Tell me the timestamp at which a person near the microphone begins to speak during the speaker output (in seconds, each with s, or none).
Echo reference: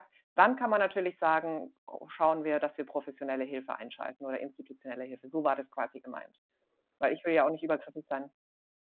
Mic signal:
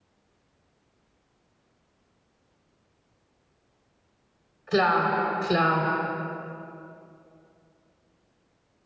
4.7 s